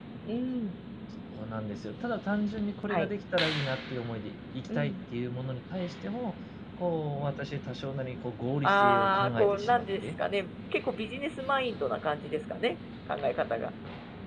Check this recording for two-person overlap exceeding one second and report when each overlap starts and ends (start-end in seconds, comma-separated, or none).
8.6-10.1